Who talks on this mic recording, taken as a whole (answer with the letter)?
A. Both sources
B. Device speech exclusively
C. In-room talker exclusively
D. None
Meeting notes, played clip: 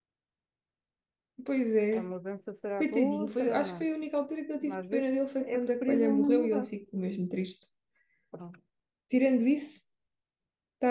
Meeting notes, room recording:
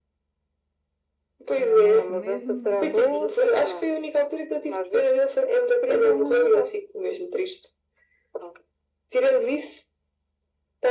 A